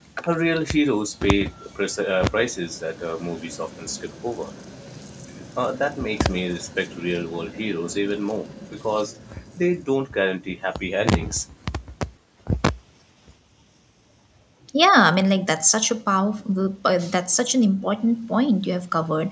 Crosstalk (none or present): none